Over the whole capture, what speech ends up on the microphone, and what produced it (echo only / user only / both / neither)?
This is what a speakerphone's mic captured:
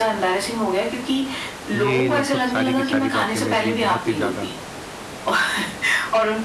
both